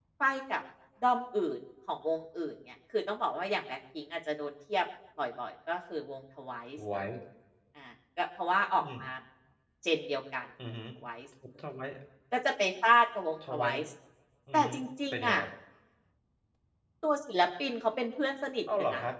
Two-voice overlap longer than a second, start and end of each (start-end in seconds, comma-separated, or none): none